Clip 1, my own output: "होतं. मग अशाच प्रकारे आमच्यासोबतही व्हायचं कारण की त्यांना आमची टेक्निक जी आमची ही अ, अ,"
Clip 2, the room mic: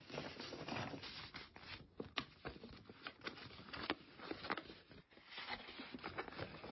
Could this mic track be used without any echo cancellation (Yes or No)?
Yes